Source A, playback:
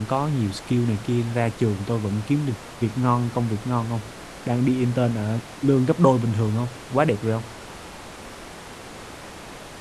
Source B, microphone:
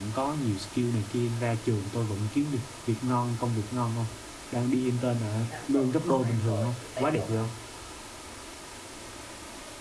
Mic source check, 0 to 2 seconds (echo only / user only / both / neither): echo only